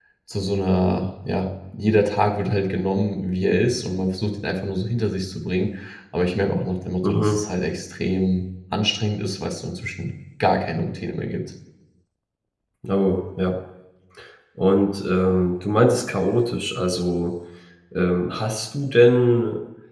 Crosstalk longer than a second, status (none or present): none